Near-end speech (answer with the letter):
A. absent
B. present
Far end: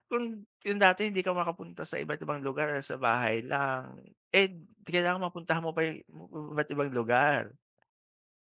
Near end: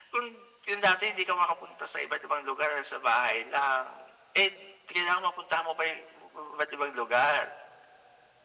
A